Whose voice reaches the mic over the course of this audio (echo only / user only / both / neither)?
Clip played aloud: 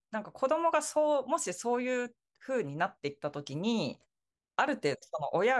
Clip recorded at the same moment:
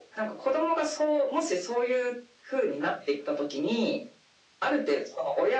echo only